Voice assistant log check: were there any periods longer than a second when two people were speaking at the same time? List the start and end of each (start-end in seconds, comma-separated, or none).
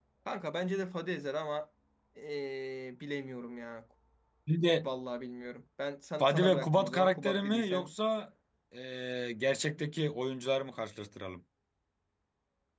6.2-7.9